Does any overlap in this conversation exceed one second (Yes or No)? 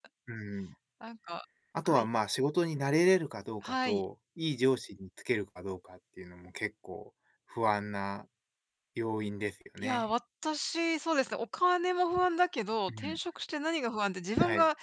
No